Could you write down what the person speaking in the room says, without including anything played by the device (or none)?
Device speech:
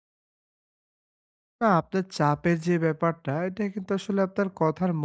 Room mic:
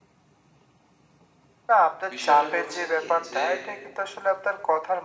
বিষয়টা হচ্ছে কি যে